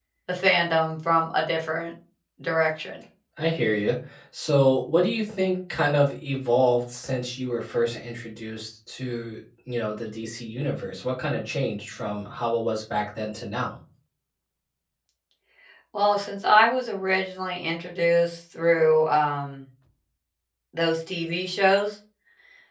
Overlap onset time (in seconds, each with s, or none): none